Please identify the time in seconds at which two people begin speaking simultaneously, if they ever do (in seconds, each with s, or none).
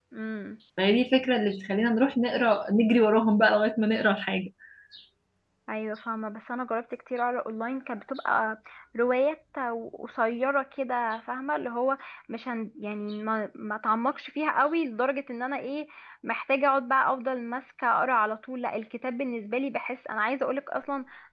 none